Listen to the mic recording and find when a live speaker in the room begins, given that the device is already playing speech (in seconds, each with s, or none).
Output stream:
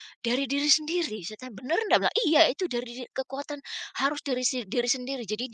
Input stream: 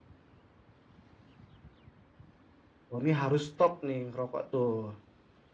2.9 s